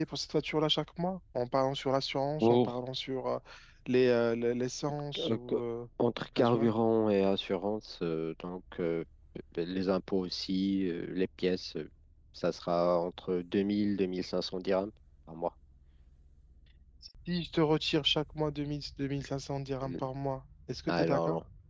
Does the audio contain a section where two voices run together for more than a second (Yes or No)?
No